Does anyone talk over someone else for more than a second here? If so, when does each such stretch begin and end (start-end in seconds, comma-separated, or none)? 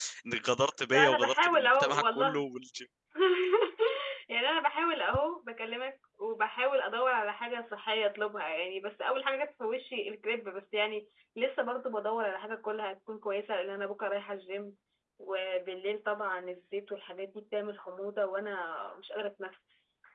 0.9-2.5